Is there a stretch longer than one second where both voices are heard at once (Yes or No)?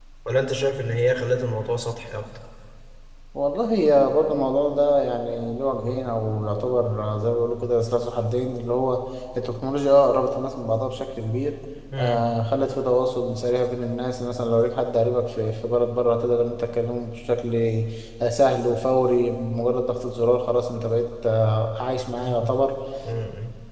No